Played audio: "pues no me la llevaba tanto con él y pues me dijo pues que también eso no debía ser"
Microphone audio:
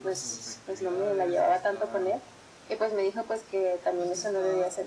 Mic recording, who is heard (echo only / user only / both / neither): both